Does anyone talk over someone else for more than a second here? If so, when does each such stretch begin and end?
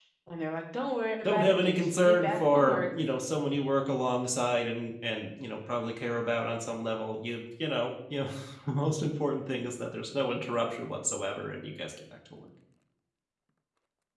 1.2-2.9

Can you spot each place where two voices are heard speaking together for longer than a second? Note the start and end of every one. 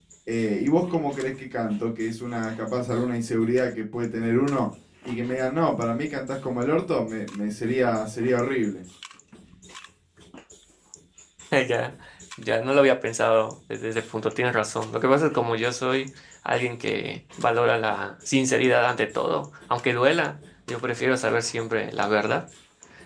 none

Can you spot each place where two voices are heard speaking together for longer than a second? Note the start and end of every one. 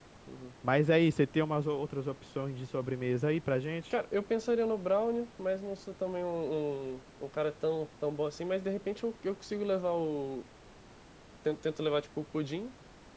none

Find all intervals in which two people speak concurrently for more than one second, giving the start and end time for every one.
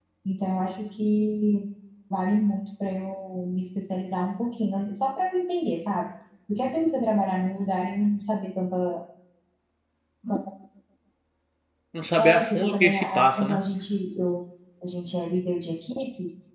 12.2-13.6

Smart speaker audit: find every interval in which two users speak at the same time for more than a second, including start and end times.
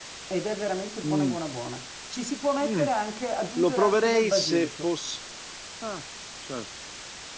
3.6-4.9

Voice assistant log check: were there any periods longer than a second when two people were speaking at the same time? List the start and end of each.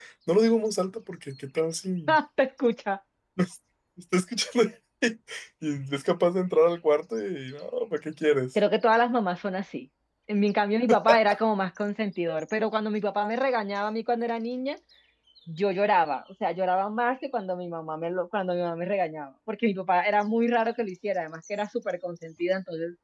none

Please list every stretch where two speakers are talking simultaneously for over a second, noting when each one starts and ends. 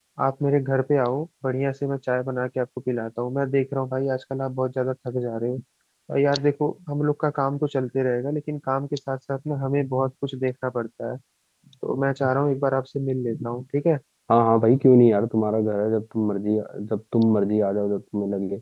none

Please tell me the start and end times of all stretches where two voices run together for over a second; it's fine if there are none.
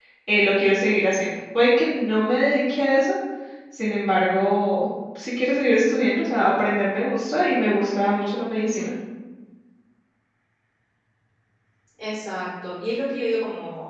none

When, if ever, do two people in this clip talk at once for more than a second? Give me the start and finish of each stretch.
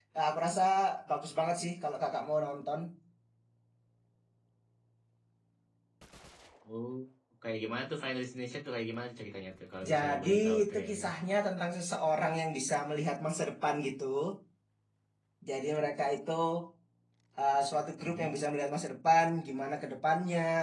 9.9-11.1

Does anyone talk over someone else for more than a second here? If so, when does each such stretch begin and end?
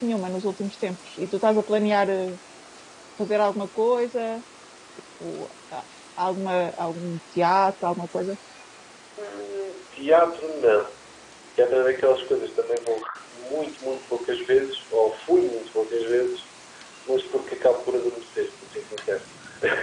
none

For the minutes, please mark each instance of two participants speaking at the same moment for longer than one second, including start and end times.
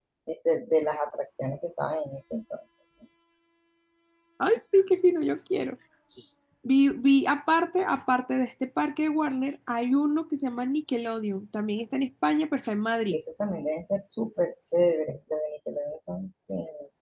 none

